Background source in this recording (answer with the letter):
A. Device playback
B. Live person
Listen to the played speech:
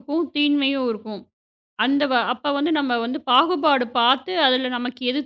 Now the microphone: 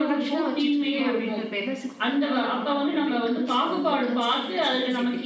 B